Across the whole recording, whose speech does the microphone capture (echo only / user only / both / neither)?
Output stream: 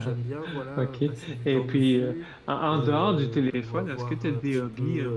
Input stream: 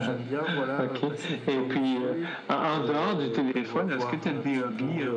echo only